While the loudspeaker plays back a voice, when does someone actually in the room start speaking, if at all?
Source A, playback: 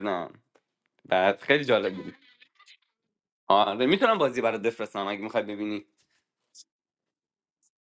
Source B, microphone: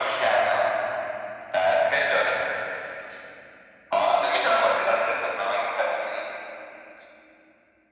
none

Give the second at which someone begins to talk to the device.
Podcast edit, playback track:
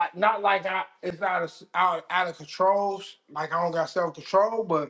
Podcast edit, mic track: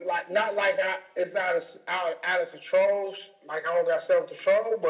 none

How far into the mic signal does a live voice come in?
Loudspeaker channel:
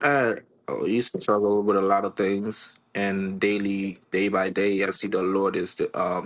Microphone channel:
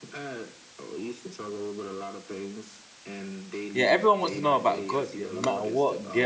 3.7 s

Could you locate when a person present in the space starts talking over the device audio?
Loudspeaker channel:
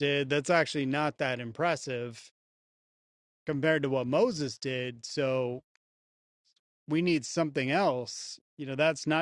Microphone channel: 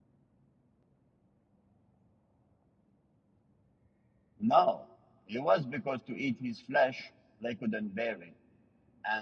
4.4 s

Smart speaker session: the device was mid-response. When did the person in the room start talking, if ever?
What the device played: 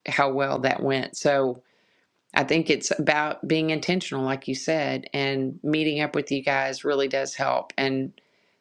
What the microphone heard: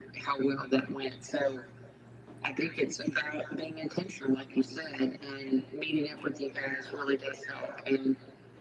none

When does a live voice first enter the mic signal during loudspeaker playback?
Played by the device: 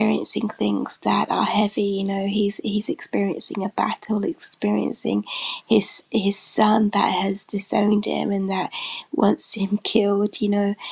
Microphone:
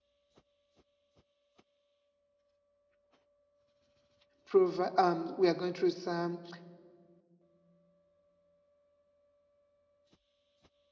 4.4 s

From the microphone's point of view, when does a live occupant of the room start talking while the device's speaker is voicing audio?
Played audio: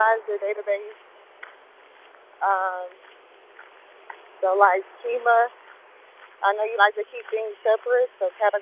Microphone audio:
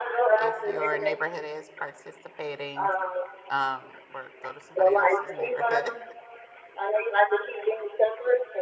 0.3 s

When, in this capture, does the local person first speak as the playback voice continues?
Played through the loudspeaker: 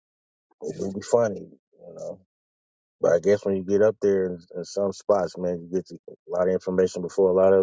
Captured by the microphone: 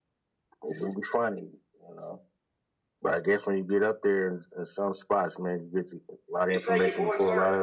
6.5 s

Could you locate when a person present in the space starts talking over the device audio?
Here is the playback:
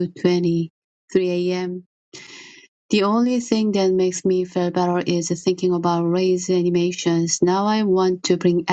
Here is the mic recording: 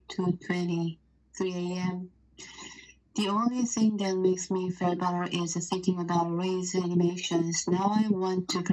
none

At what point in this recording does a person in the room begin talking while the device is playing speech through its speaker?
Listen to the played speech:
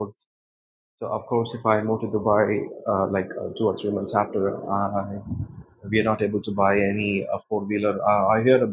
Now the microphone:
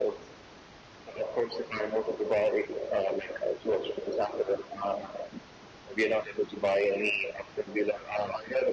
none

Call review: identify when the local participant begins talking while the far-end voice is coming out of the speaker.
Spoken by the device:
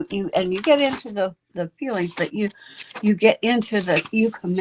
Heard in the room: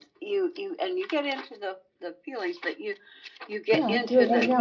3.7 s

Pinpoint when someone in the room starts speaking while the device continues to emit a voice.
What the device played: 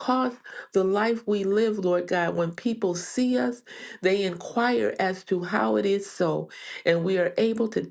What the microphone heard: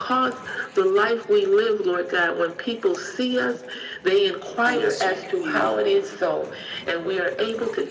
4.6 s

